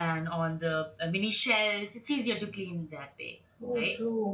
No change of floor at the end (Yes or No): No